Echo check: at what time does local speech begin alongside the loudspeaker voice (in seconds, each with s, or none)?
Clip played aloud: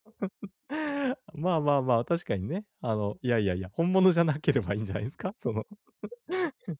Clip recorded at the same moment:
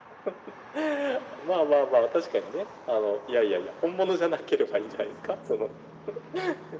none